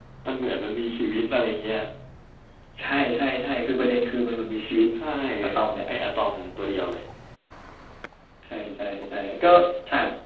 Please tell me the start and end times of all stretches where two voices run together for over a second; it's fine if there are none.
none

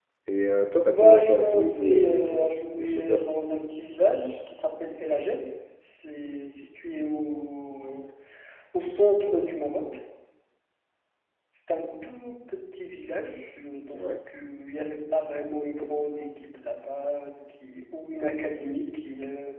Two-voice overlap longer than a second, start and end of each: 0.9-3.2

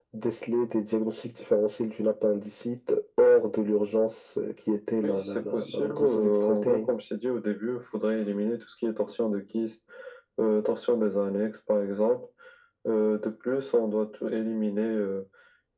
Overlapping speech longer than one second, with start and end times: 5.0-6.9

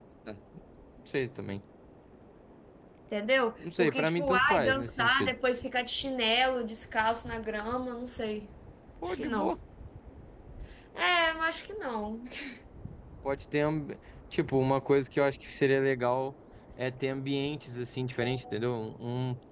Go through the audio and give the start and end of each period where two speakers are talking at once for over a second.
3.8-5.3

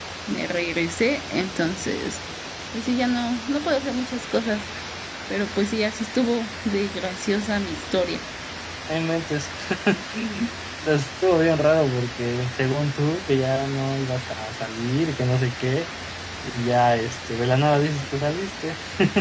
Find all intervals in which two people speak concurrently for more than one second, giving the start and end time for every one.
none

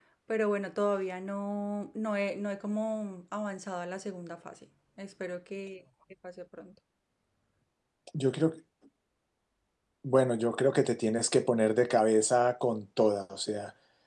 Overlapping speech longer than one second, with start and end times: none

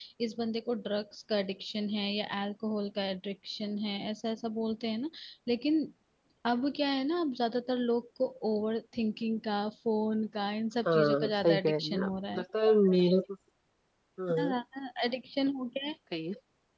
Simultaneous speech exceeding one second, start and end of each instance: 10.8-12.4

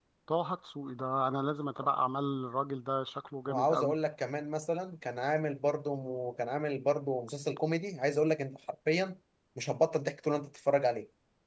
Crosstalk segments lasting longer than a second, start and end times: none

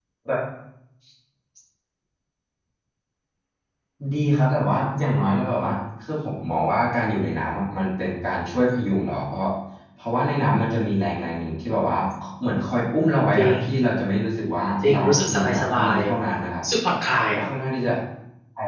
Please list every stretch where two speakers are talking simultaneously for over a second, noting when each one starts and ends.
14.8-16.1

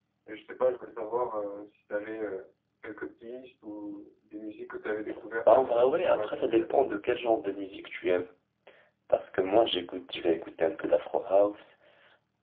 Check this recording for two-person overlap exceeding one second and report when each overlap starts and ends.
5.5-6.9

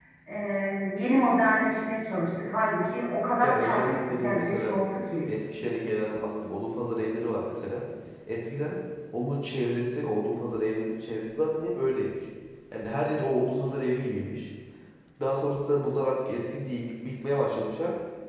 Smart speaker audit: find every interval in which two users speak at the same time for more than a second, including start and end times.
3.4-4.8

